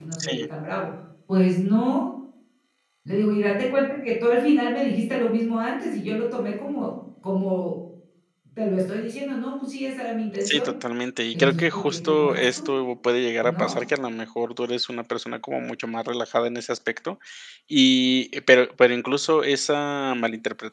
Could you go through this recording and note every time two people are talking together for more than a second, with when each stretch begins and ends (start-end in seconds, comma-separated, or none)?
11.3-12.7